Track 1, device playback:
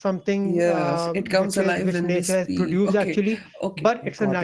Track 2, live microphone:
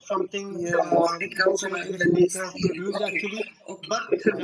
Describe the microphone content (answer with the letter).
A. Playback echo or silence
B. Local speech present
A